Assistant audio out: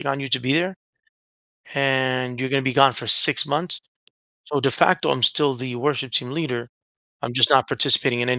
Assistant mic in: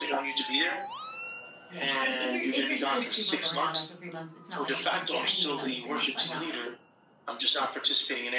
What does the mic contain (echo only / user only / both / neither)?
both